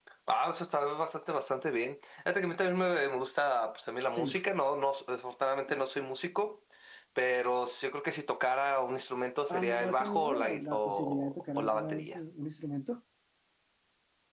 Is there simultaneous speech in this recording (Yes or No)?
Yes